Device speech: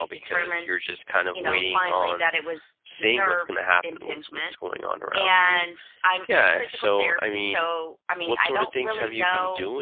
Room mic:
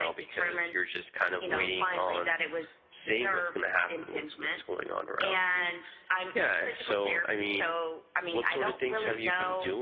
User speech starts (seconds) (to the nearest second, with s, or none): none